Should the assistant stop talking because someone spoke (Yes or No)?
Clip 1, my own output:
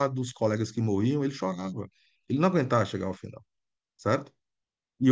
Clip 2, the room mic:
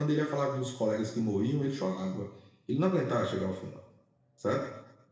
No